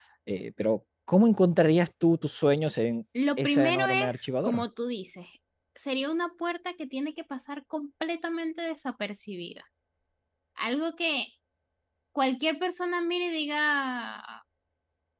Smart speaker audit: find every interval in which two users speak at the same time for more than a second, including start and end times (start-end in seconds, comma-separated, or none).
3.4-4.6